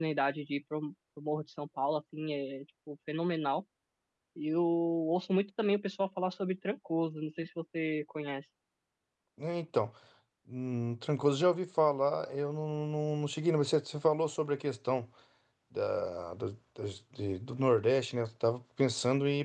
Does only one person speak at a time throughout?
Yes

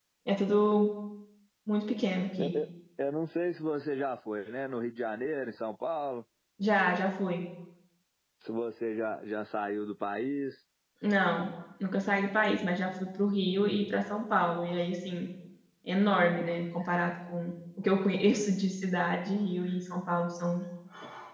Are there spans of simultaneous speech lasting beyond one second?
No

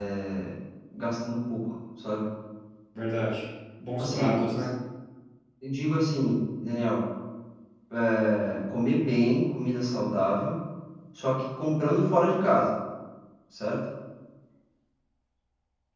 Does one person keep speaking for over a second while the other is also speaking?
No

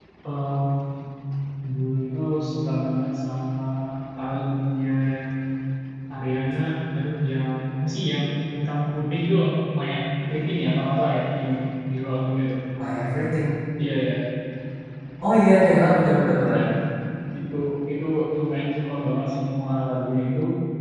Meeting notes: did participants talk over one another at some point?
No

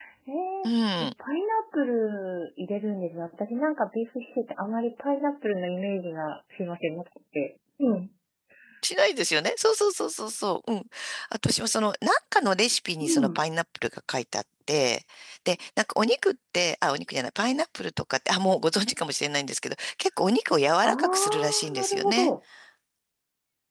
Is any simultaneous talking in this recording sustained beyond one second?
Yes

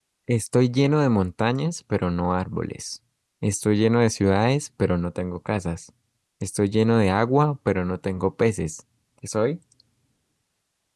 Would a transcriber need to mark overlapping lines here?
No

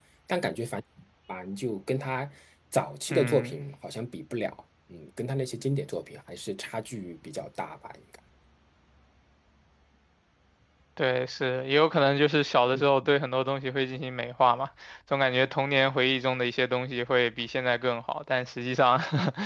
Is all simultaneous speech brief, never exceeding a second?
Yes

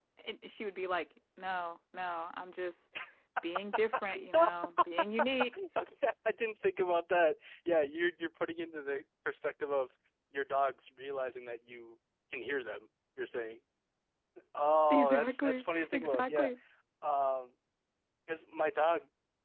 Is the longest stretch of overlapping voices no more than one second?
No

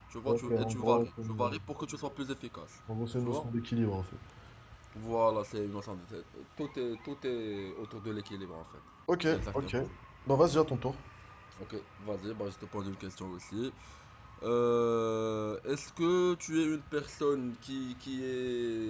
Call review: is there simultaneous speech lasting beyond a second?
Yes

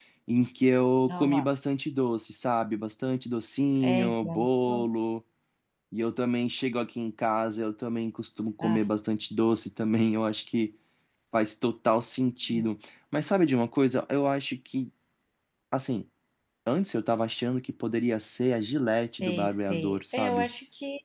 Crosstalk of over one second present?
Yes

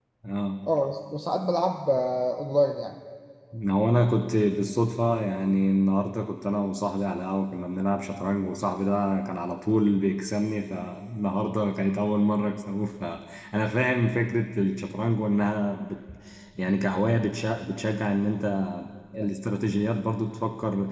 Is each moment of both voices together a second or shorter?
Yes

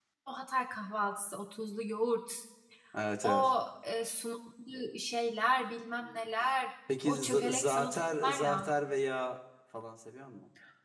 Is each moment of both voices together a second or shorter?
No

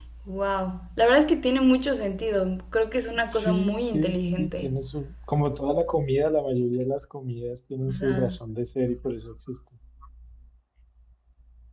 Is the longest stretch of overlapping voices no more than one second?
No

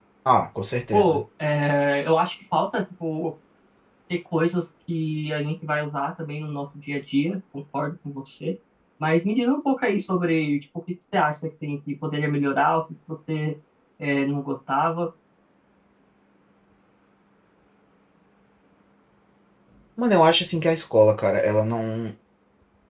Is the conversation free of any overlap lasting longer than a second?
Yes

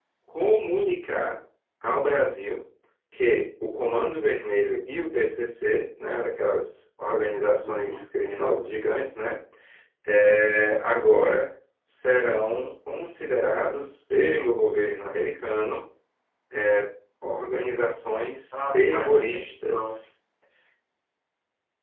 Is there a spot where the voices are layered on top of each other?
Yes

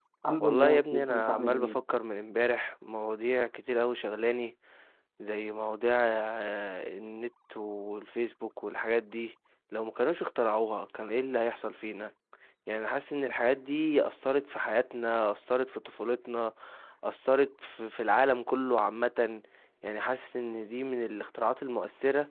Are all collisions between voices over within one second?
No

